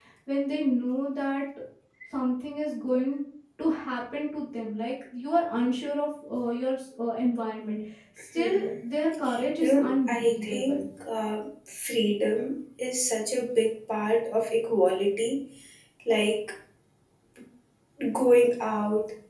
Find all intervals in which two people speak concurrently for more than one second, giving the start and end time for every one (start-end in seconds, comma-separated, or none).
9.6-10.8